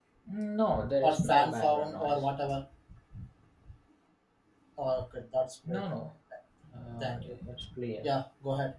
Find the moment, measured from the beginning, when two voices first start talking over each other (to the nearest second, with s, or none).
1 s